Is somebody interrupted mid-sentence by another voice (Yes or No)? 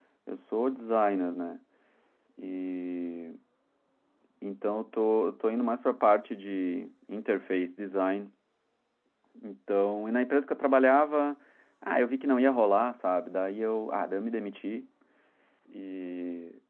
No